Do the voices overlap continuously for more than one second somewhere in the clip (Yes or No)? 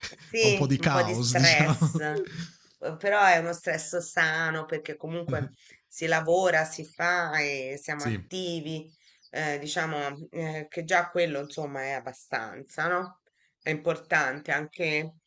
Yes